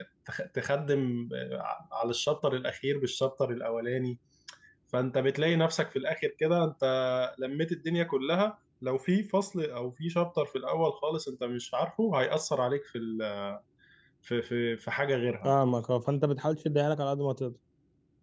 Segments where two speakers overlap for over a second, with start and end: none

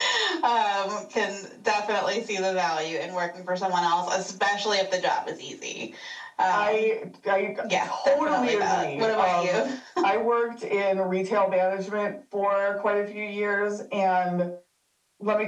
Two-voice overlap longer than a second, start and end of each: 7.8-9.6

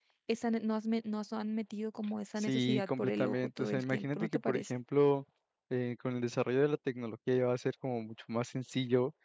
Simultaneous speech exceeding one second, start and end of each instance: 2.4-4.7

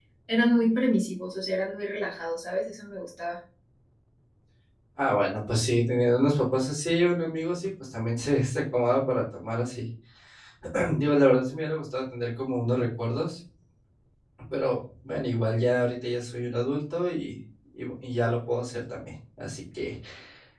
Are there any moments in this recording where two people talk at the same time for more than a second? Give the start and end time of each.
none

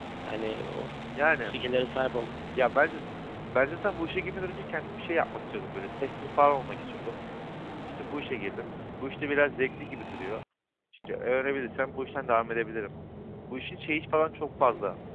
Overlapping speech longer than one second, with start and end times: none

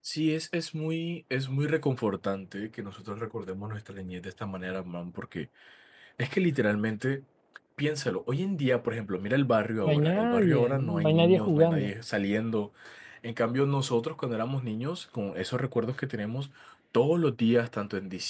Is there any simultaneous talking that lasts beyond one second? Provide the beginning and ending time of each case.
9.8-11.9

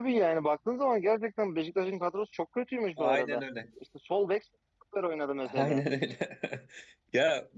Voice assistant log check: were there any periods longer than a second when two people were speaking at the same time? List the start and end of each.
none

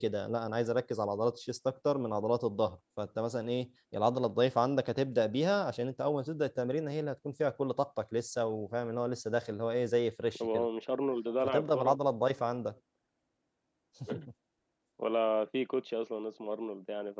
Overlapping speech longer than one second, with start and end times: none

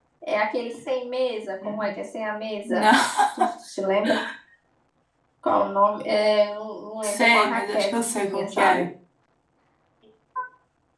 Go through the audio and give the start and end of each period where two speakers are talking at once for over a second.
7.0-8.8

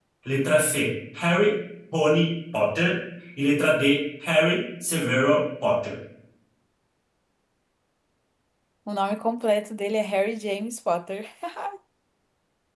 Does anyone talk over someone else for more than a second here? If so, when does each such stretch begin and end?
none

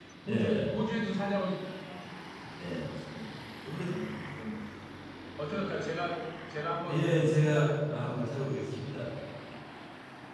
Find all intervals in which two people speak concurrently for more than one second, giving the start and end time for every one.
6.9-8.1

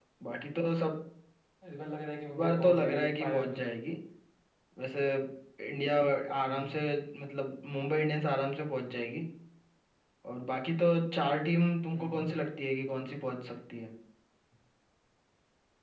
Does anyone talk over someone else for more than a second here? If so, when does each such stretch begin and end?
2.4-3.6

